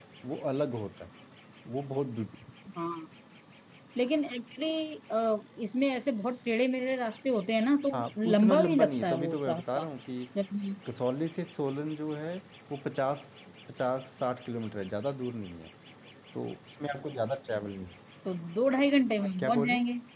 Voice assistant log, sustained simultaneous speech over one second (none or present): present